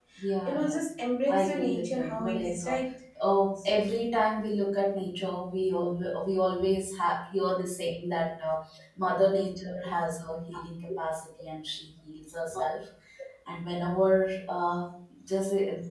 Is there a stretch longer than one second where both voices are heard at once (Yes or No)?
Yes